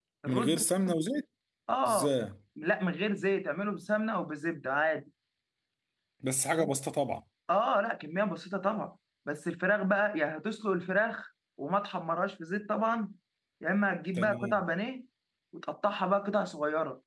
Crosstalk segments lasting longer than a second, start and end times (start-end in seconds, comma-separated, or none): none